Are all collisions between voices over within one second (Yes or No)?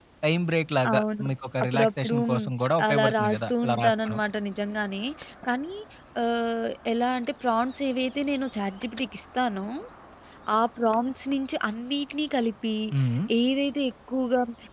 No